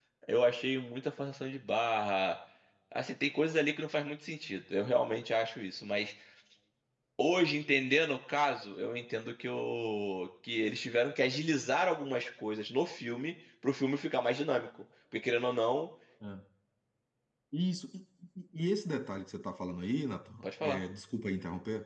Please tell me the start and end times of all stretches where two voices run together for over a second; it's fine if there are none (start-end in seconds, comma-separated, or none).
none